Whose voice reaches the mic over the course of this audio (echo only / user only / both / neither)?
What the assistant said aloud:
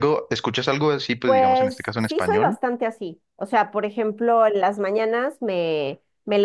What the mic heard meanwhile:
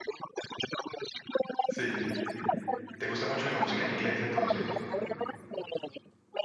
both